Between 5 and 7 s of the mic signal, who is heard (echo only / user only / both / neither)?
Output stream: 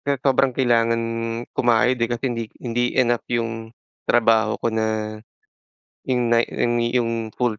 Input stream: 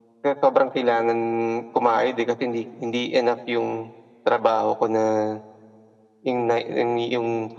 echo only